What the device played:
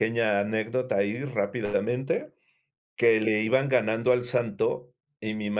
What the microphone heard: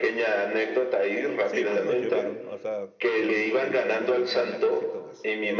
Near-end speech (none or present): present